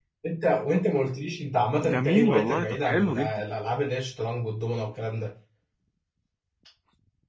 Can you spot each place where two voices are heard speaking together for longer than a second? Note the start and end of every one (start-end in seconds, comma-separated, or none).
1.8-3.4